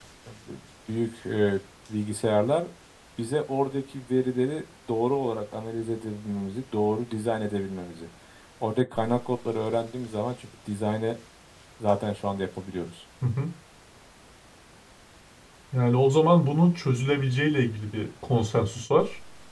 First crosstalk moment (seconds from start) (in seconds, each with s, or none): none